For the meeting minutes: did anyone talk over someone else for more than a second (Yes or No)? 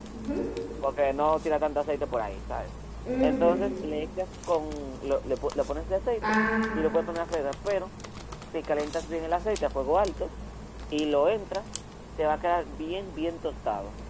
No